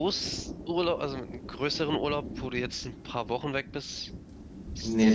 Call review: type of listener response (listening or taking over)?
taking over